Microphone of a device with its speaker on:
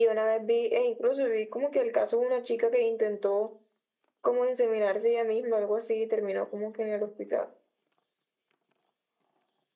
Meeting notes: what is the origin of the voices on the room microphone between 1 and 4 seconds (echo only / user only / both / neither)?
echo only